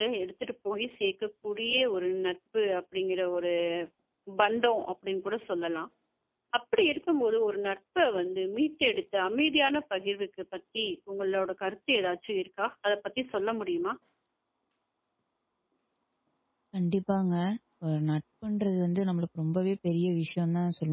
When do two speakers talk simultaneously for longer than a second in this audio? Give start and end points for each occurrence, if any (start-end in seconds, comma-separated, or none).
none